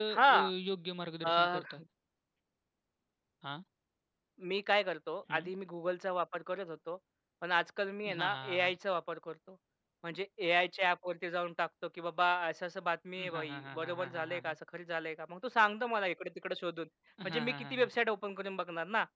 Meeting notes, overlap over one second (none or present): present